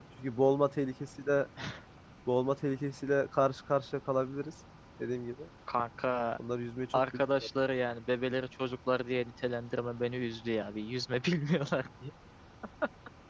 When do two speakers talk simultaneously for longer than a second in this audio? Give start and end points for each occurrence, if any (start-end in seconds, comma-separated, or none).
none